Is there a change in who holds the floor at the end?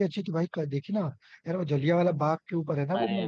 Yes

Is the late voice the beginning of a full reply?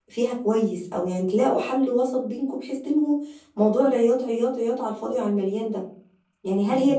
No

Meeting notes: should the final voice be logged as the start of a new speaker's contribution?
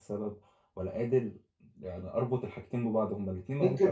Yes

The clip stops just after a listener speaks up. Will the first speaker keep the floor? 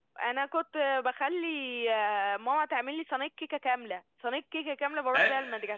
No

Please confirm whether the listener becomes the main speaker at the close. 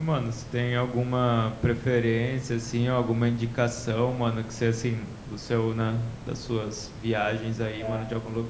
No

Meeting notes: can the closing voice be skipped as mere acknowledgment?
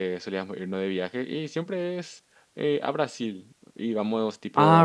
Yes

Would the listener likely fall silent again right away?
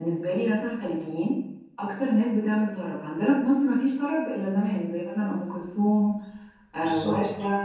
Yes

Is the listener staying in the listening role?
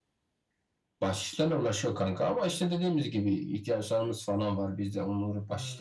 Yes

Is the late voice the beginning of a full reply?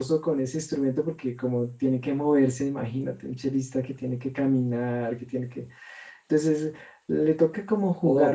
Yes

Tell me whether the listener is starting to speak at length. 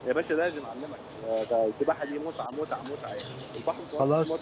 Yes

